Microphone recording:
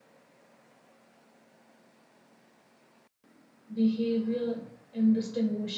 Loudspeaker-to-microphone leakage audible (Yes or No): No